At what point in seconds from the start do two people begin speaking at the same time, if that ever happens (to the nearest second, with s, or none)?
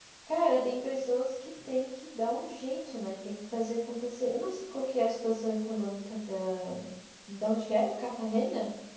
none